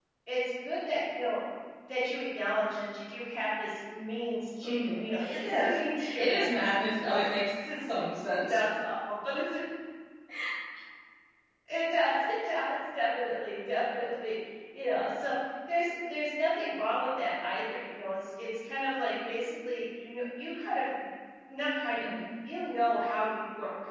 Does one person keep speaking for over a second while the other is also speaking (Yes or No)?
Yes